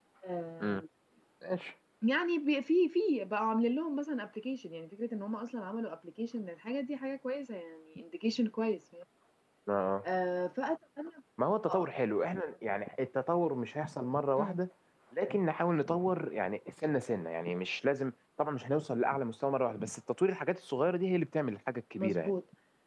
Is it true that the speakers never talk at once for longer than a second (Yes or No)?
Yes